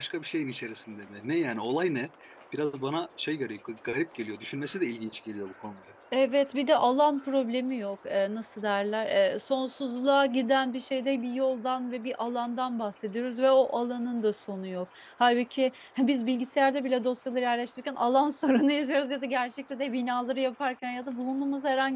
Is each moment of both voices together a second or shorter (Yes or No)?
Yes